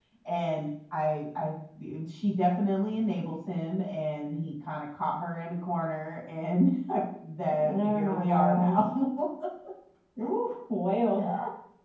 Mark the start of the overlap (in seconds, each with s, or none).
7.5 s